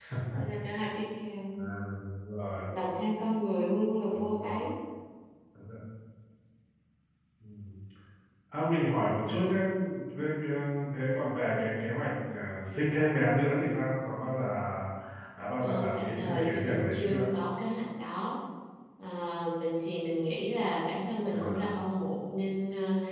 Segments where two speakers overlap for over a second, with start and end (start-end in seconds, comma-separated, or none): 15.6-17.3